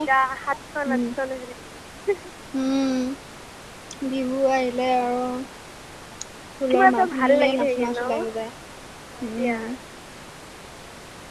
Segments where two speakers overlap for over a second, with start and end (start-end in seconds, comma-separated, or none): 6.7-8.2